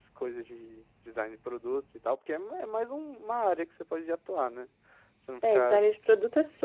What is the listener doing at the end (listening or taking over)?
taking over